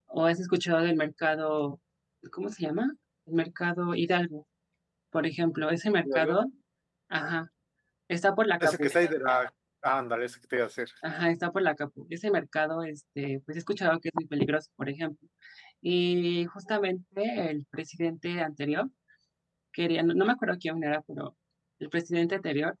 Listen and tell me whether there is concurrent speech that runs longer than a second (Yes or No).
No